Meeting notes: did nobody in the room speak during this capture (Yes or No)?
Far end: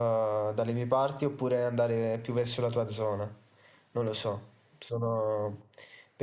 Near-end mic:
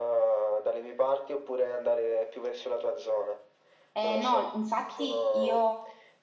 No